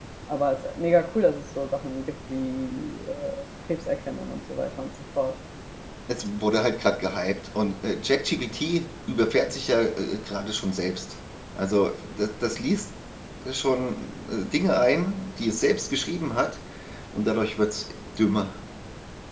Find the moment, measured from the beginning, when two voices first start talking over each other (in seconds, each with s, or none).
none